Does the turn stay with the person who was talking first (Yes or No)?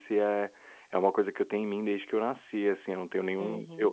No